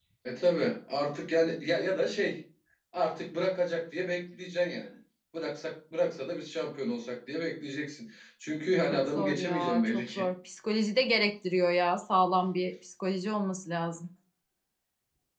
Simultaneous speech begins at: 8.9 s

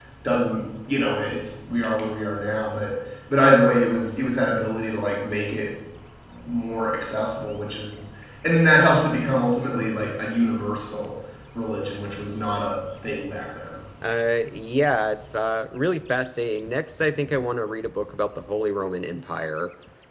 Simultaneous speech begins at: none

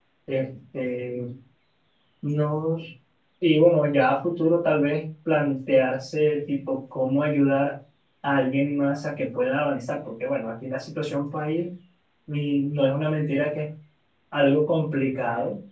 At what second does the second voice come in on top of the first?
none

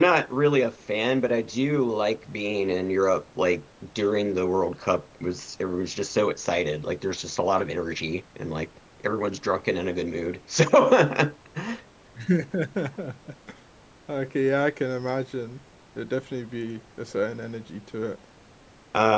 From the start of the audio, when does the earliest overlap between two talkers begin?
none

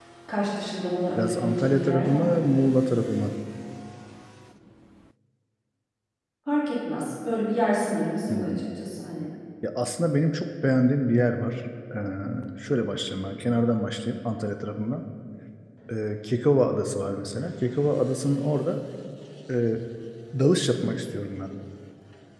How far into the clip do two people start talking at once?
1.2 s

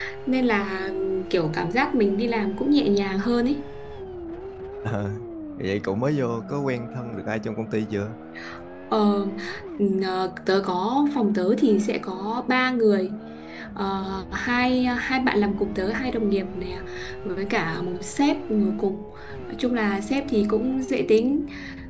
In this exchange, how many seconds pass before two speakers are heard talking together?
none

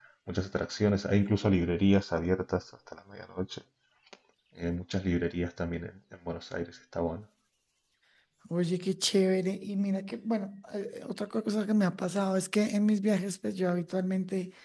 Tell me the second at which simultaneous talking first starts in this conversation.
none

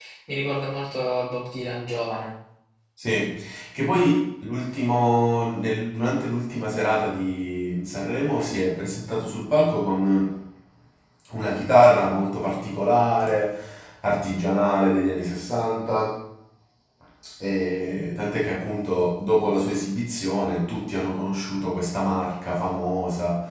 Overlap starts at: none

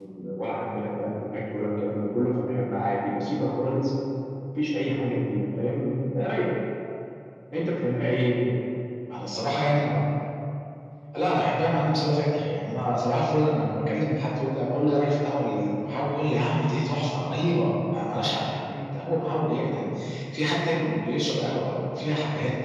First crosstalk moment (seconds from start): none

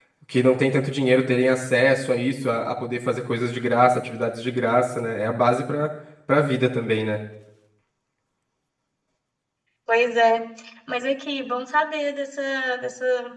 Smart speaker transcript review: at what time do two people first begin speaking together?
none

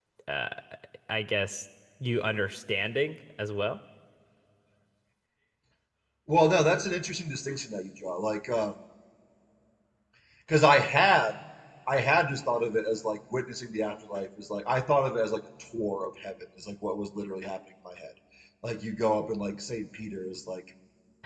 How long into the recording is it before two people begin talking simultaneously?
none

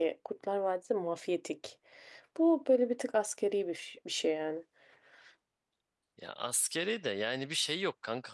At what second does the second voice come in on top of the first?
none

